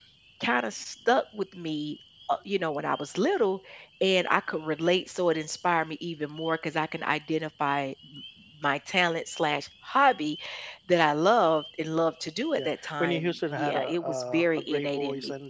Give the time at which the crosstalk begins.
12.6 s

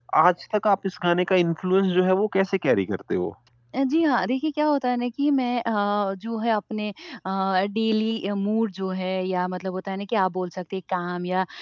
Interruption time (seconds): none

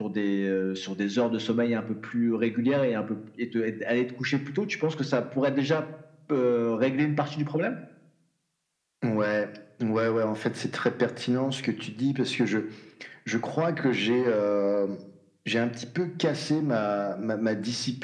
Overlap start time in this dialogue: none

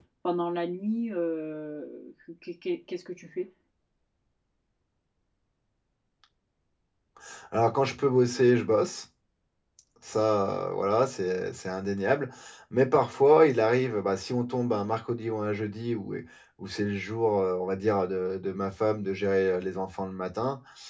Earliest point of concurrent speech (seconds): none

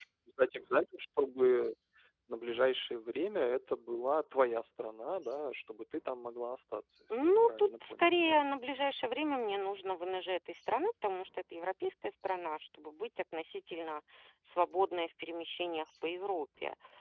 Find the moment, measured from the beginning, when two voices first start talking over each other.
7.1 s

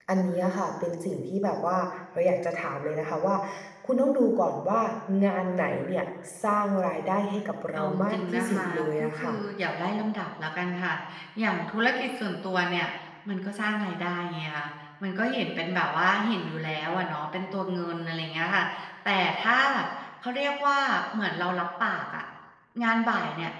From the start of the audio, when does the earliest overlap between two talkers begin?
7.7 s

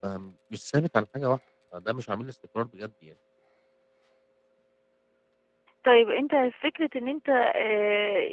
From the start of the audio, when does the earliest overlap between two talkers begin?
none

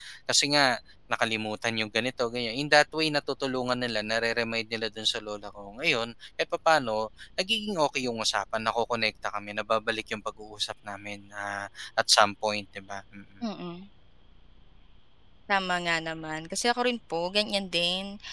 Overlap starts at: none

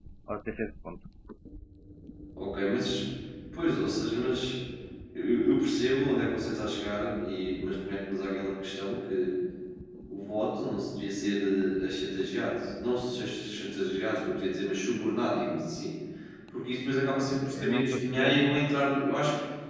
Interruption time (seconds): 17.2 s

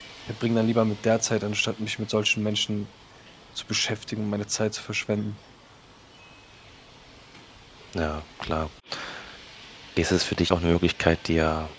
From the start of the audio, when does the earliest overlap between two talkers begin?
none

